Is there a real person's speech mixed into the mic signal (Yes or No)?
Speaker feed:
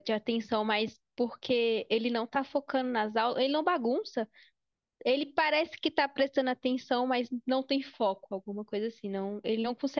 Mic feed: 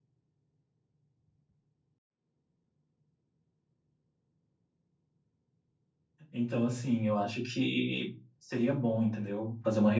Yes